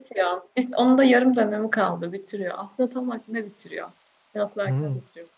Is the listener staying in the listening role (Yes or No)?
No